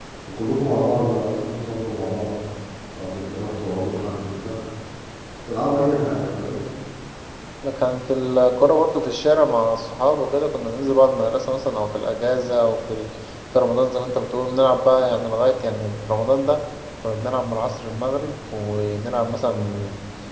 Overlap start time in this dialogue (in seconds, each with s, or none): none